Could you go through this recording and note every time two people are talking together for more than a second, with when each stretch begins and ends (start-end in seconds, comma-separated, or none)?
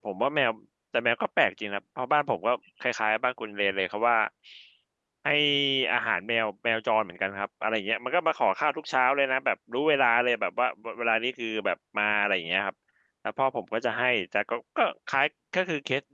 none